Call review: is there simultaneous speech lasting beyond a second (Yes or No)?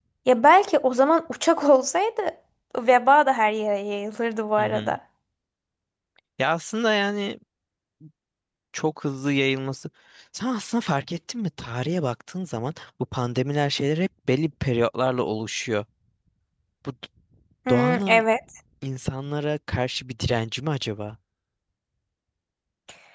No